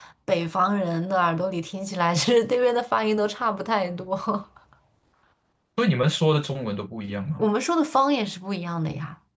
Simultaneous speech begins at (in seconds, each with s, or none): none